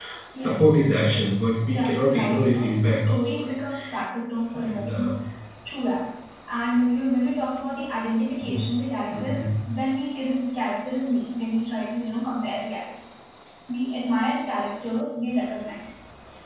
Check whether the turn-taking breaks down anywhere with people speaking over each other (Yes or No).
Yes